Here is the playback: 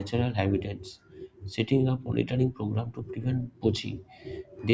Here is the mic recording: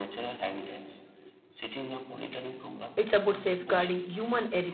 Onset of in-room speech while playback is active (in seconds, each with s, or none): 3.0 s